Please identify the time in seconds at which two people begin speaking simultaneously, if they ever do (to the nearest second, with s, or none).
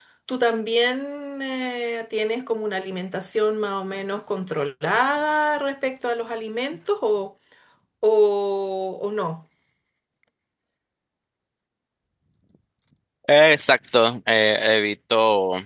none